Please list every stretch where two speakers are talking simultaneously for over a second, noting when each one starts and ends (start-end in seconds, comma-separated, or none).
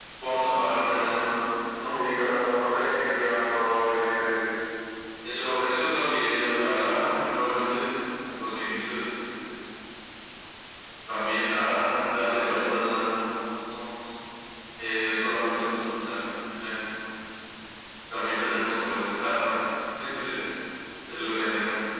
none